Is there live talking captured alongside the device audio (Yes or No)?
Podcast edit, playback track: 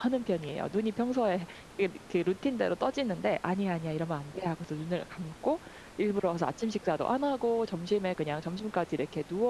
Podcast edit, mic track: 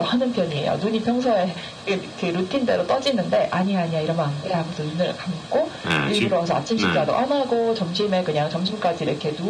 Yes